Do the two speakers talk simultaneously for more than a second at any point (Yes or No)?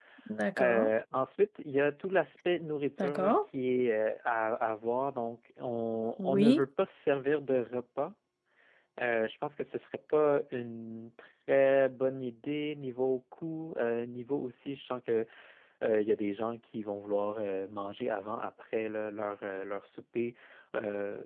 No